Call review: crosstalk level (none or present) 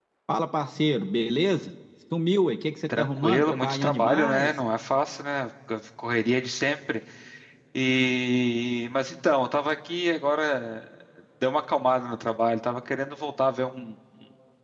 present